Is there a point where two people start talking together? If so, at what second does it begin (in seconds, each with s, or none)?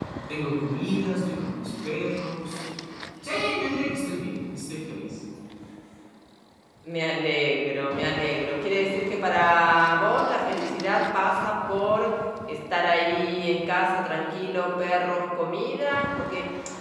none